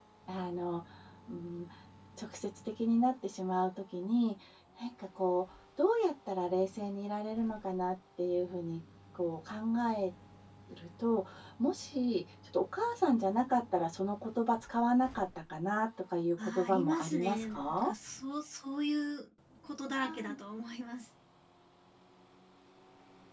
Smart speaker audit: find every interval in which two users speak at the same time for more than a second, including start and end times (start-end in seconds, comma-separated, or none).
16.4-17.9